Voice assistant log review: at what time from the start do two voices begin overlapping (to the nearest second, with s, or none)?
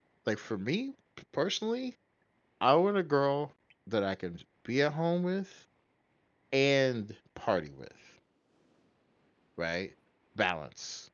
none